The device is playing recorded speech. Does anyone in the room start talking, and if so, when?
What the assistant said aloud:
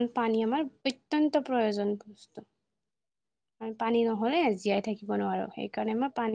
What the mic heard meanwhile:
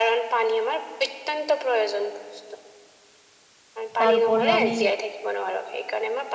4.0 s

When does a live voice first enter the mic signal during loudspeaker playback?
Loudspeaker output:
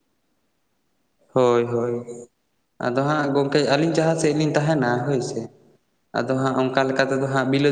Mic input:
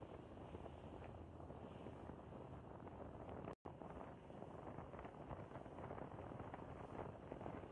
none

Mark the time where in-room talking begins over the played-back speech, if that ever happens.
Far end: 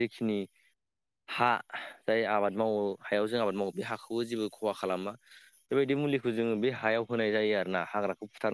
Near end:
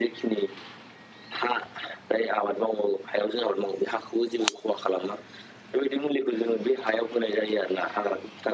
none

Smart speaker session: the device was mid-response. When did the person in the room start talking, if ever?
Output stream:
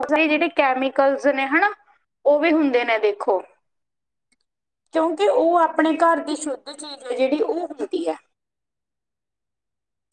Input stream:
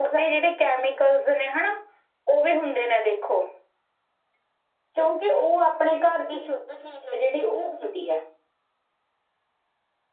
none

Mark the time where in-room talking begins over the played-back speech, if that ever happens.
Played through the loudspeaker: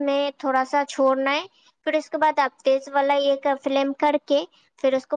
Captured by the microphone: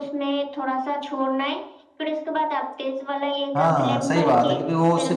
3.6 s

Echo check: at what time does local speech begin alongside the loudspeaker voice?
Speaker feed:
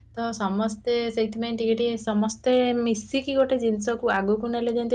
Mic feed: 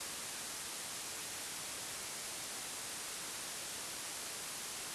none

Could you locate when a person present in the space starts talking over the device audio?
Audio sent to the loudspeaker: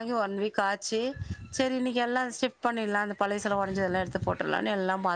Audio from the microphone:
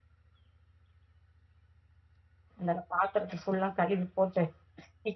2.6 s

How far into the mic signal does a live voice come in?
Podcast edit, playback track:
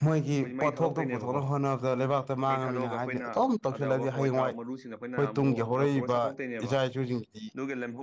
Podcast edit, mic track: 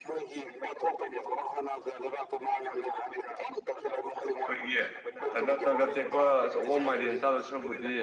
4.4 s

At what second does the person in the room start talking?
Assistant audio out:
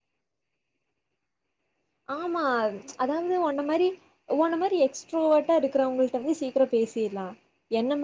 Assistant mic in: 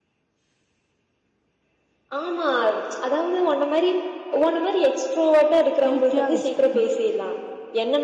5.8 s

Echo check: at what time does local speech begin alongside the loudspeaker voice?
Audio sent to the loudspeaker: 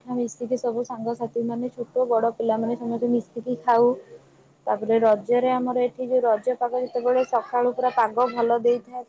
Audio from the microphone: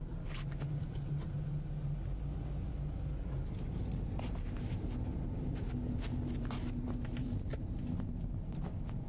none

